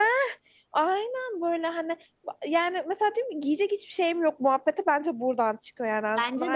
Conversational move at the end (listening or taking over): taking over